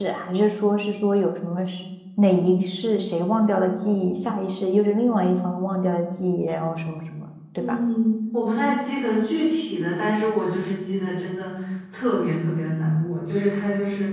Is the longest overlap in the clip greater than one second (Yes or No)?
No